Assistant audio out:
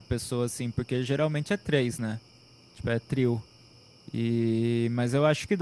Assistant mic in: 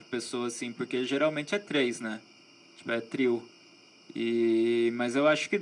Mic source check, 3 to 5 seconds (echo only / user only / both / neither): echo only